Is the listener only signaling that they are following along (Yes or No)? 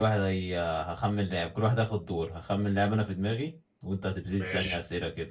Yes